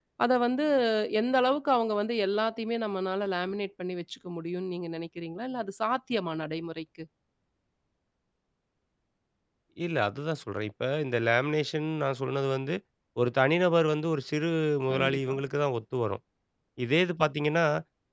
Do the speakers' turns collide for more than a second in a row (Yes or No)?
No